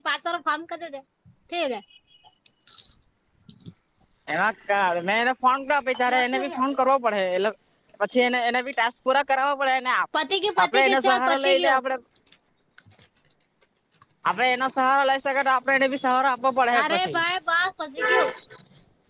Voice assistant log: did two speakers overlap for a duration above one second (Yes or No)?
Yes